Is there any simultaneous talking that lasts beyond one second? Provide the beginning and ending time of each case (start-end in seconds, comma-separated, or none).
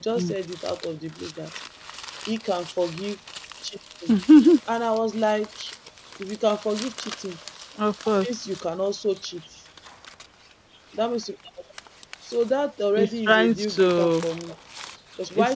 12.9-14.3